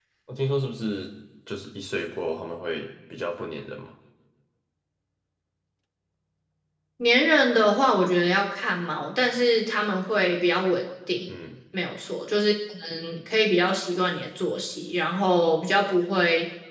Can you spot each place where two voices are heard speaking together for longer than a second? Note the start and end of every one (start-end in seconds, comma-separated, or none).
none